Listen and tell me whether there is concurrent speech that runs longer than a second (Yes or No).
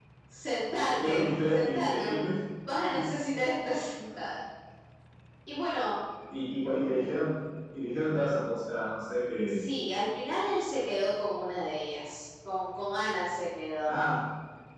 Yes